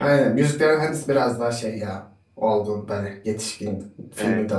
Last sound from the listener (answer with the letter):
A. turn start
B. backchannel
B